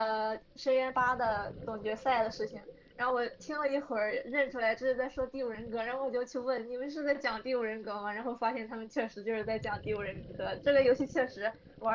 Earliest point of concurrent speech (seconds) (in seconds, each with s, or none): none